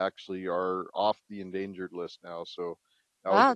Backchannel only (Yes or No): No